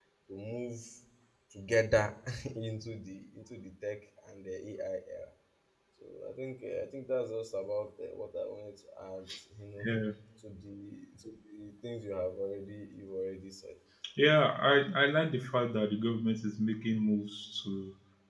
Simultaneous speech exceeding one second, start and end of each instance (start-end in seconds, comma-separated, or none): none